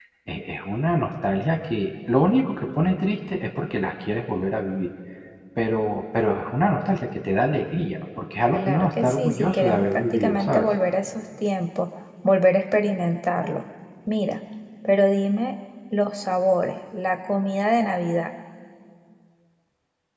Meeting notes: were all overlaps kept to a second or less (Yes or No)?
No